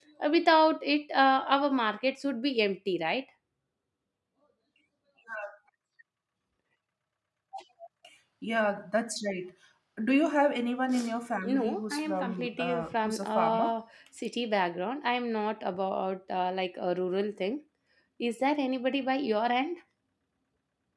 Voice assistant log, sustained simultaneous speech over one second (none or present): present